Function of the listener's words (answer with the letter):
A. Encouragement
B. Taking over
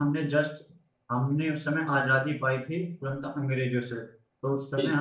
A